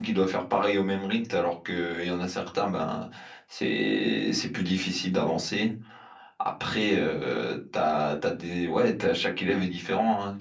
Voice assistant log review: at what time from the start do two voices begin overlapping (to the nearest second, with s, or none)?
none